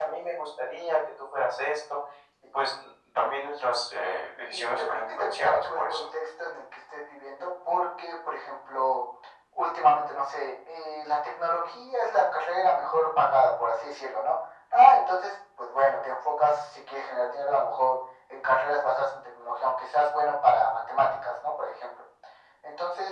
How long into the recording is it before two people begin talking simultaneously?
4.5 s

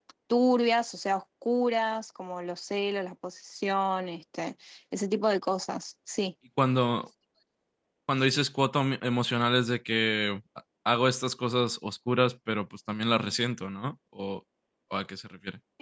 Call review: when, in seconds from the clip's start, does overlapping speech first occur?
none

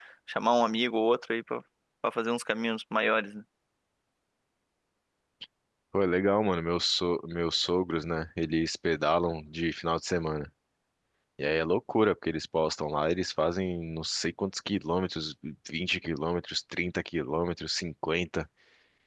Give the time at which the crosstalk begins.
none

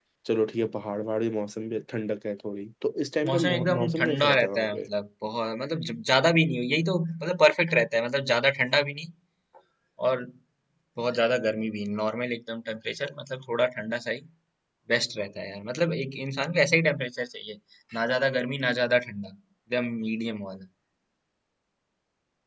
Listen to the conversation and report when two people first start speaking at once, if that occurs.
3.2 s

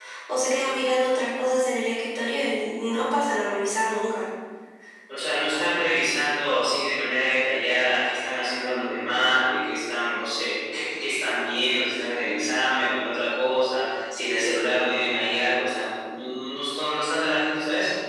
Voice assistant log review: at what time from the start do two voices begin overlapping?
none

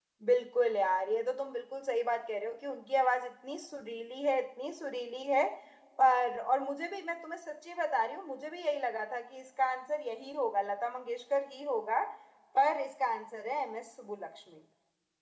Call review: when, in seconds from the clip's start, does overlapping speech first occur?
none

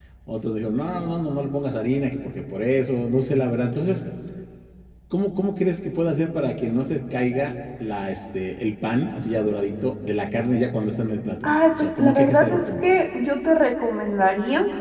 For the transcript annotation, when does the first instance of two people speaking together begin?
11.4 s

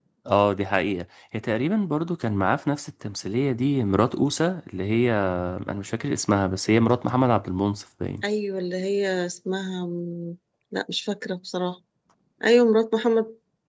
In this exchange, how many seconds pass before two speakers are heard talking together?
none

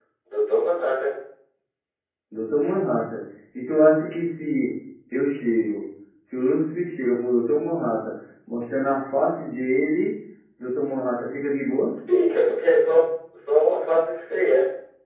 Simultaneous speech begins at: none

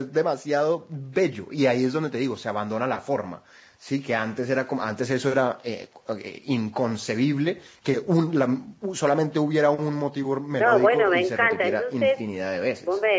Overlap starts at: 10.6 s

